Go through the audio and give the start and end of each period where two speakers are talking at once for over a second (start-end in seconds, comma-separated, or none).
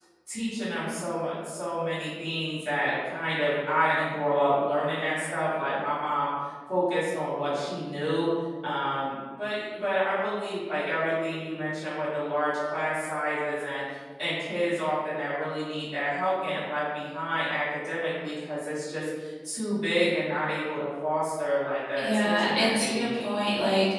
22.0-23.3